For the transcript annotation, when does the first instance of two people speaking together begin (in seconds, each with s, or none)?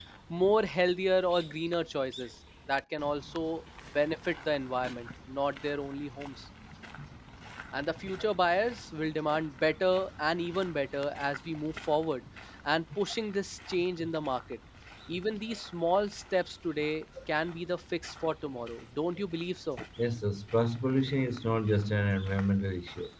none